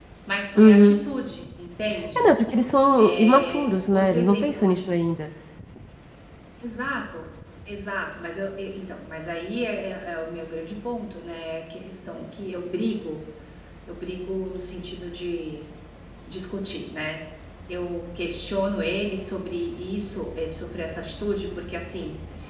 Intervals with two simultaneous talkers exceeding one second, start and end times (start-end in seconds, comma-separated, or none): 3.0-4.9